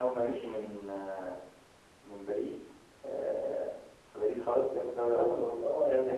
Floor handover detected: Yes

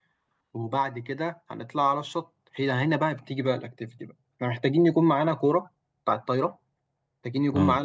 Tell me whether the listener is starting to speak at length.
No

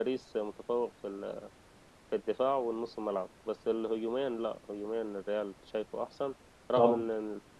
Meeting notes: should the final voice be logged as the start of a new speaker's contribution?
No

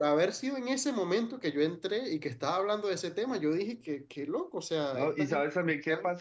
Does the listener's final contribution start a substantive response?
Yes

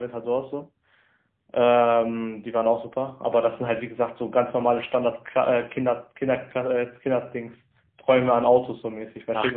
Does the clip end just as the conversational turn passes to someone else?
Yes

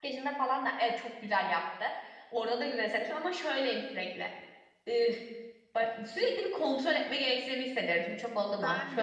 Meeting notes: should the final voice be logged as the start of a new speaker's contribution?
No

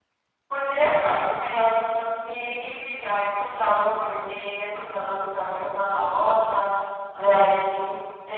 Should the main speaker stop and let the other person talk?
No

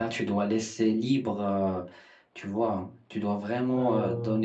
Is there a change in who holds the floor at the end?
No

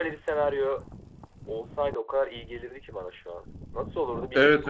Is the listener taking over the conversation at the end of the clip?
Yes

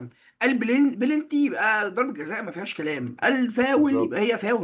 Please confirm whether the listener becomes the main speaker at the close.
No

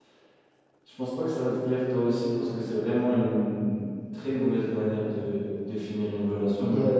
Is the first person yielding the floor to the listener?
Yes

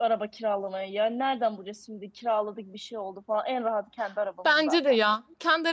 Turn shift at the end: Yes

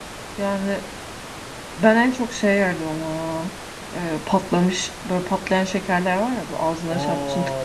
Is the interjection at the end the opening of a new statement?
Yes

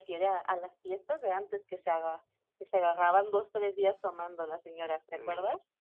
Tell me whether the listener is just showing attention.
No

